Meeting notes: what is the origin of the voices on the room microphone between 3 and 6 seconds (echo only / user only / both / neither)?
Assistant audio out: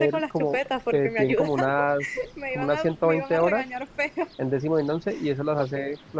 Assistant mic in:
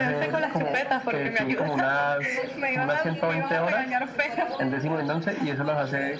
both